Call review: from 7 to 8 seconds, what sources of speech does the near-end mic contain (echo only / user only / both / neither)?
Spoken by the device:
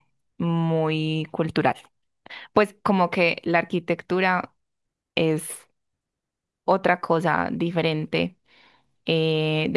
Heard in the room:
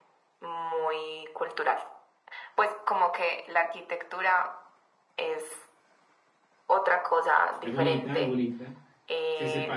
both